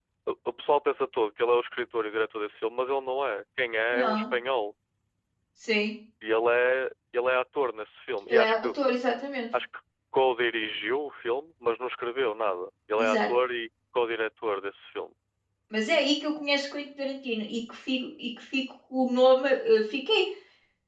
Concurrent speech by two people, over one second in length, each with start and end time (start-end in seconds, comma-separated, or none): none